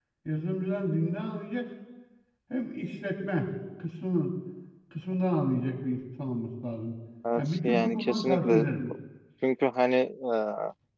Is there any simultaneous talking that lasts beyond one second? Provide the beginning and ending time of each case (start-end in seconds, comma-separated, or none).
7.4-8.7